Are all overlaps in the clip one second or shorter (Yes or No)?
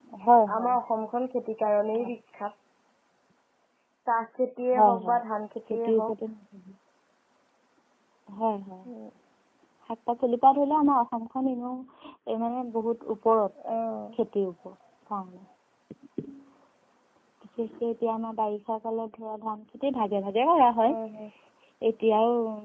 Yes